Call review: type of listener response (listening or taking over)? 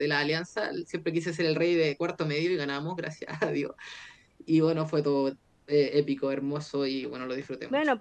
taking over